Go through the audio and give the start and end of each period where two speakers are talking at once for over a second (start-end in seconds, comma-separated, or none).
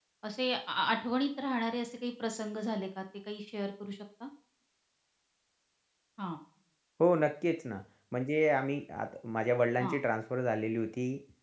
none